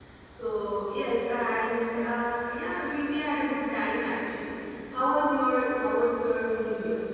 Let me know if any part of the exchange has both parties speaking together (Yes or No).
No